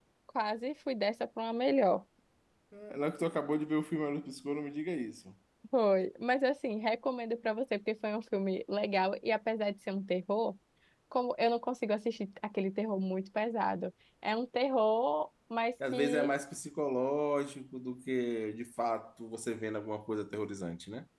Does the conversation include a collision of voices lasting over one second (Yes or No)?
No